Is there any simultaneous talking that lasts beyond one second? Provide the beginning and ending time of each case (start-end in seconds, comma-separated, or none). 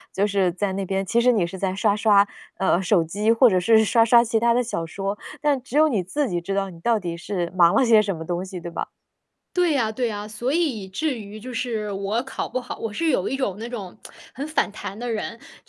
none